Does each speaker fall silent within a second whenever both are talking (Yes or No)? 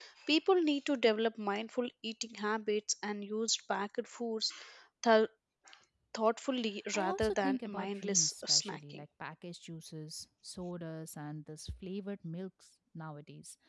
No